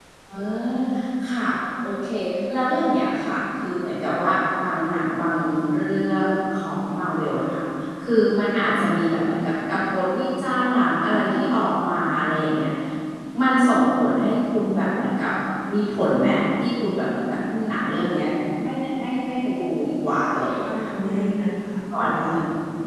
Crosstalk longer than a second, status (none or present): none